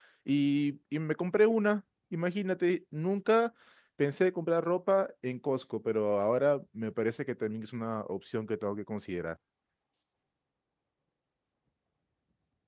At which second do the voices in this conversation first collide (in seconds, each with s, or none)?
none